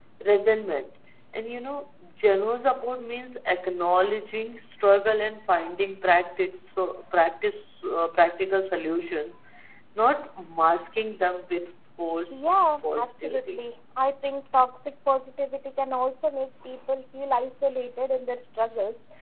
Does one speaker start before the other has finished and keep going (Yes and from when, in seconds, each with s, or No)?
Yes, from 12.3 s